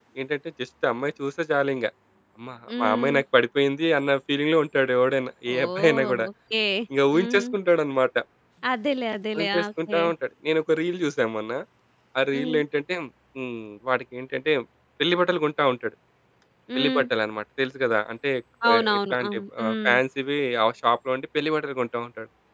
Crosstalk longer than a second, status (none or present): present